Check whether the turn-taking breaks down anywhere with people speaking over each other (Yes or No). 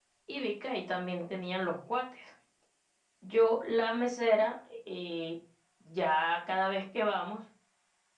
No